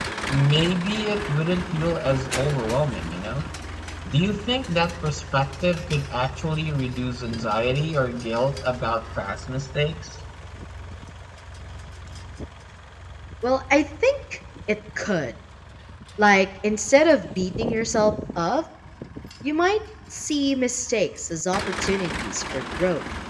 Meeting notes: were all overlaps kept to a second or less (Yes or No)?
Yes